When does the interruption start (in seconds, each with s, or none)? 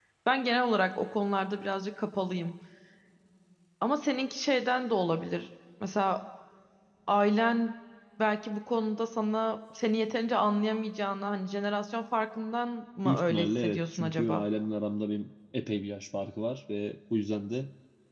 13.0 s